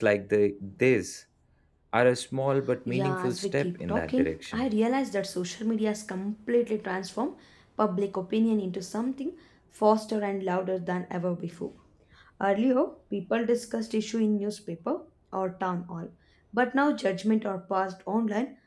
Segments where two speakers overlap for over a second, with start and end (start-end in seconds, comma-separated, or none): 2.9-4.7